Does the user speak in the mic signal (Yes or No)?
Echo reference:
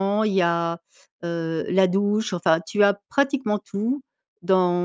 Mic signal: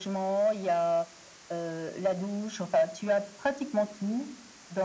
No